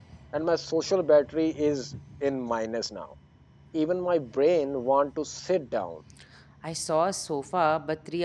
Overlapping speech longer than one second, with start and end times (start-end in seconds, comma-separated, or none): none